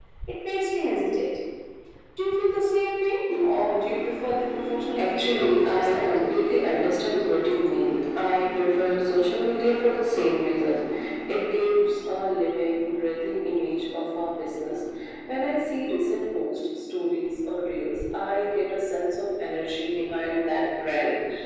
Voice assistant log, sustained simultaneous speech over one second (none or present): present